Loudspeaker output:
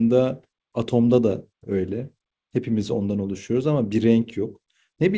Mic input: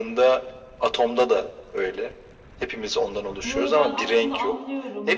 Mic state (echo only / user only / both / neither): both